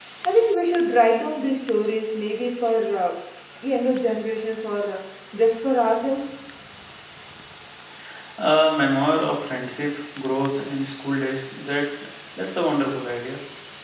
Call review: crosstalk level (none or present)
none